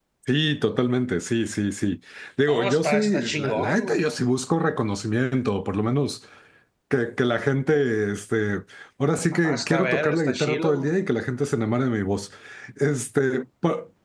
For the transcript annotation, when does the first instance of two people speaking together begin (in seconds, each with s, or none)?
2.5 s